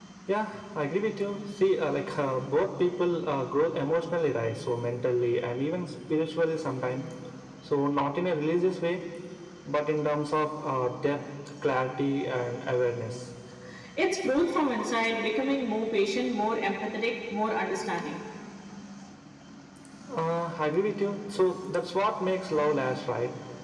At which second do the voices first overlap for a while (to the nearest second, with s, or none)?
none